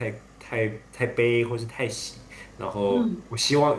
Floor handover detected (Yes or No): No